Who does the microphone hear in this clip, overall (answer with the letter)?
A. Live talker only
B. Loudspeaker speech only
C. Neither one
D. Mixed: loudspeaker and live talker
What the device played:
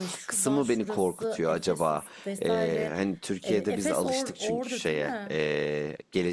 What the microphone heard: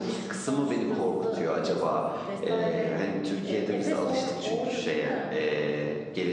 B